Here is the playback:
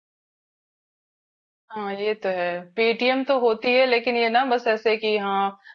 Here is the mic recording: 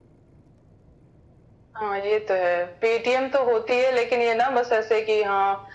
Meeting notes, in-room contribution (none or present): none